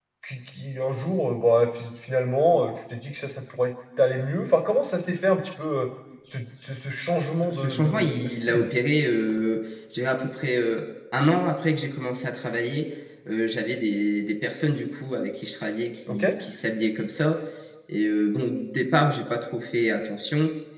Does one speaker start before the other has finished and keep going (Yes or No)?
Yes